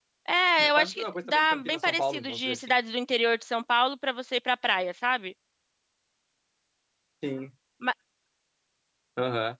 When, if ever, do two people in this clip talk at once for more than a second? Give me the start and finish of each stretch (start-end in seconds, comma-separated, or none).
0.7-2.7